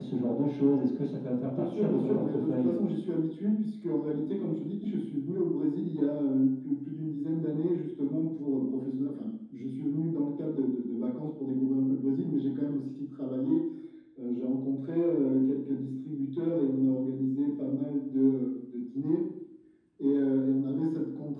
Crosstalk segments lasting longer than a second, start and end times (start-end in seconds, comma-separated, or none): 1.5-2.8